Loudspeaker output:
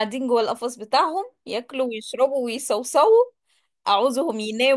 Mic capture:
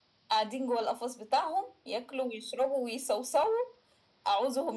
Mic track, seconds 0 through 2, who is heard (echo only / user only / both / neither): echo only